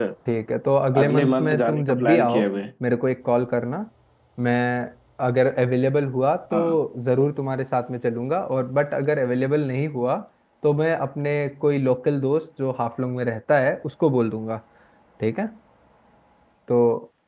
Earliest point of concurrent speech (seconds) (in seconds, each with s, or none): 1.0 s